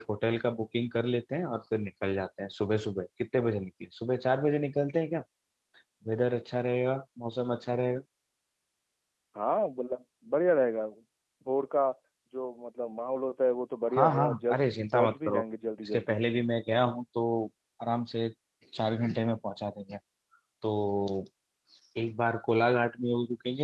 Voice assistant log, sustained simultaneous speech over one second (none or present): present